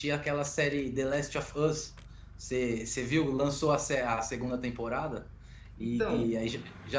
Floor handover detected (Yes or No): No